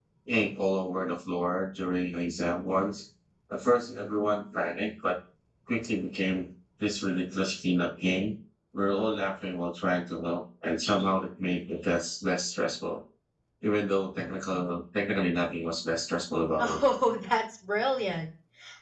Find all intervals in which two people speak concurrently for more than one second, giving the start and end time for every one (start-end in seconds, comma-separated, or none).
none